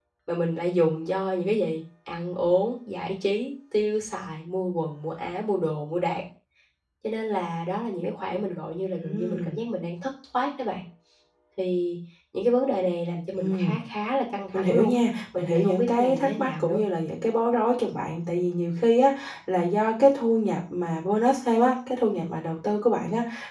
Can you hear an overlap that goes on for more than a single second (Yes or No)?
Yes